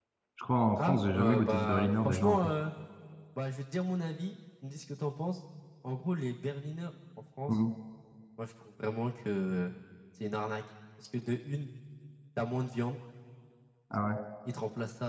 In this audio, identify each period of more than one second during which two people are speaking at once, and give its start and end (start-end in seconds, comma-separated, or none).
0.8-2.5